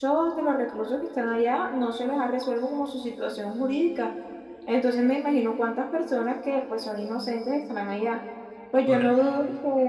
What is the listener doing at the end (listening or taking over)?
listening